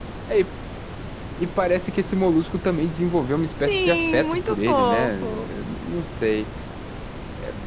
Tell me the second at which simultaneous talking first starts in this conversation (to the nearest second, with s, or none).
4 s